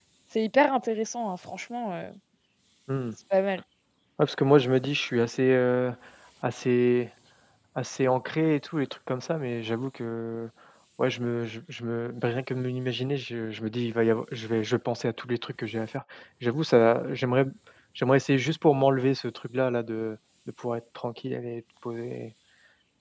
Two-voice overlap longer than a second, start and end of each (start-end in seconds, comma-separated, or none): none